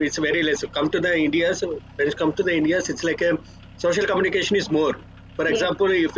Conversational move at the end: listening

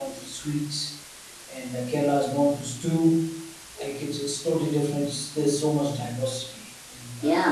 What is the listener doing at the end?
taking over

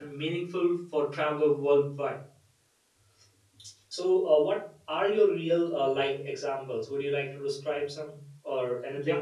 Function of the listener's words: taking over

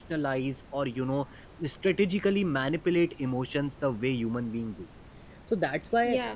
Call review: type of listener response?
listening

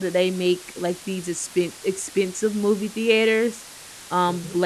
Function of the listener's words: listening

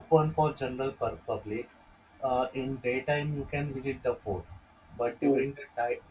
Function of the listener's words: listening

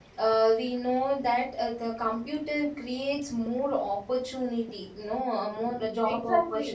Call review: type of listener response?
taking over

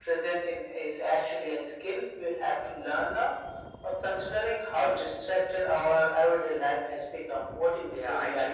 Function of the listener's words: taking over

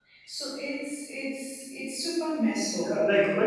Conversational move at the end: taking over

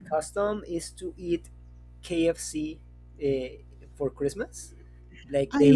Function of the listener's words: listening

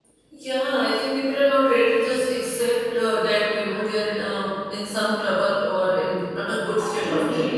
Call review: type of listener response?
taking over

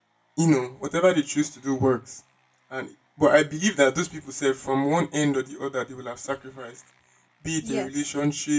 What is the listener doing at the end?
listening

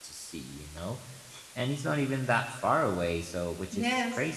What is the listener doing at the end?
taking over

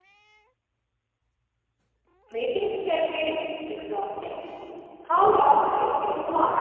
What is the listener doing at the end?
taking over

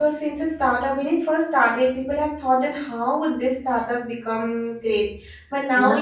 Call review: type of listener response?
listening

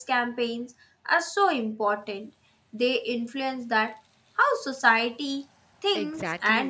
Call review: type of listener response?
taking over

